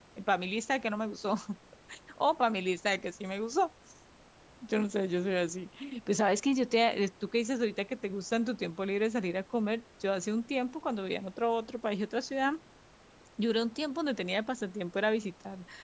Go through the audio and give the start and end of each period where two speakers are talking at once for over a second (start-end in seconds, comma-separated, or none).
none